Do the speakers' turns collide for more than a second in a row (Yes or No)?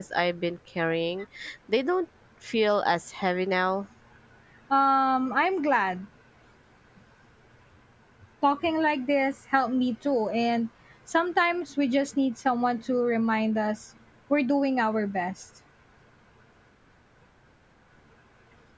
No